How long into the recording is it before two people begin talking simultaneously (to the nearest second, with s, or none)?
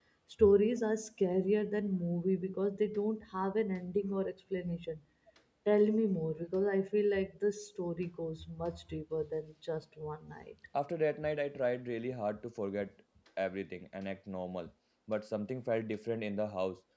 none